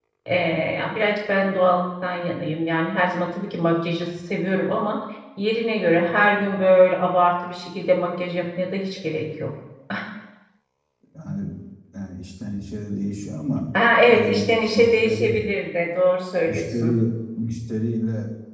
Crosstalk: present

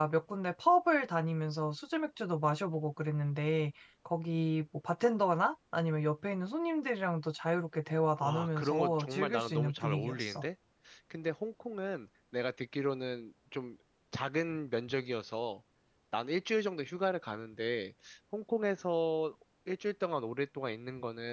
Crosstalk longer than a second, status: present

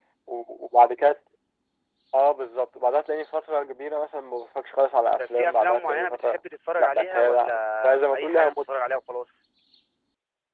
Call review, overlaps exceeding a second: present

